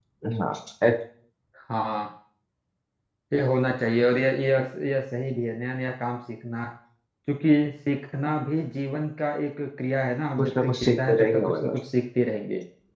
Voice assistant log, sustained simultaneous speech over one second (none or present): present